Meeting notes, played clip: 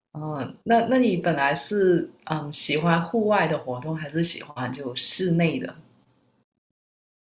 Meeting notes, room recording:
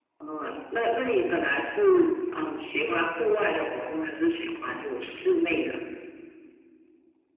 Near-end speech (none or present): none